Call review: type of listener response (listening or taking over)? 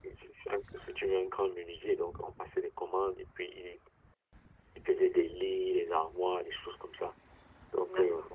listening